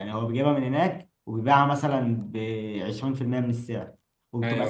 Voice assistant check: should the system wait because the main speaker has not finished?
Yes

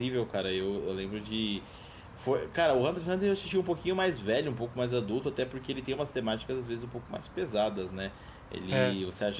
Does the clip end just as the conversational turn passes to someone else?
No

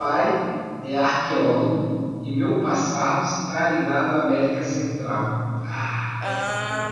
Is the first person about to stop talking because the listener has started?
Yes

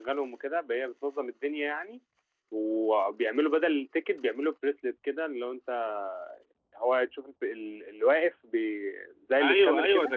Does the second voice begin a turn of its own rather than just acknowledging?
Yes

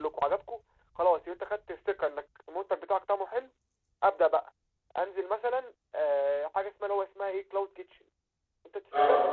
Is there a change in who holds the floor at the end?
No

